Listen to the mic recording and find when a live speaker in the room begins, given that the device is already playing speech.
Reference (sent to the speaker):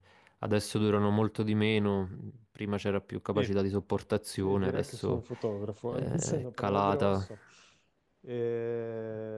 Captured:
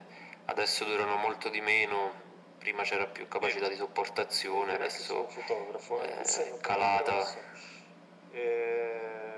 none

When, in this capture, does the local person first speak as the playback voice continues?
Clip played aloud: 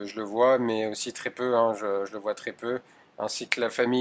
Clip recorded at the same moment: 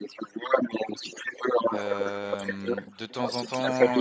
1.7 s

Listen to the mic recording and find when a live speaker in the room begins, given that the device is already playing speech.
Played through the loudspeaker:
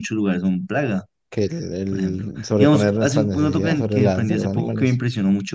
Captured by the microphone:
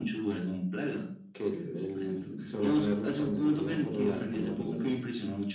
none

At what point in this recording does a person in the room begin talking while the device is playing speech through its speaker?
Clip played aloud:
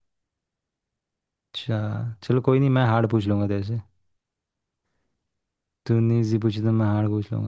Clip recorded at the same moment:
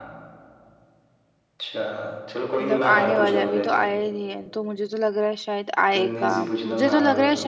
2.6 s

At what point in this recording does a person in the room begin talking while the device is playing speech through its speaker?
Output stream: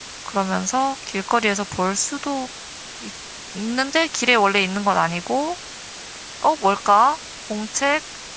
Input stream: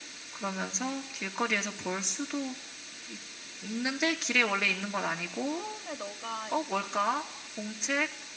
5.5 s

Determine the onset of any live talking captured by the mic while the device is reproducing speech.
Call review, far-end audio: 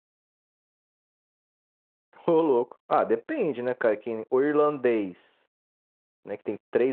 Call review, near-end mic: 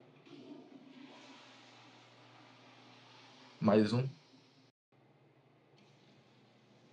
3.6 s

